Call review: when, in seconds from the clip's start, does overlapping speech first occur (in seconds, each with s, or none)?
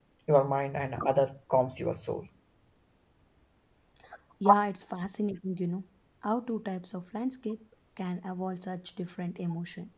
none